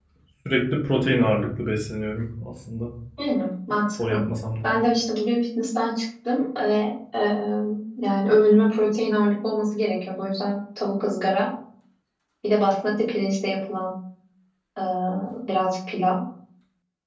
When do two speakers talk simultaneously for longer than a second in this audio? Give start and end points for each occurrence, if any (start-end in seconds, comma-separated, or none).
none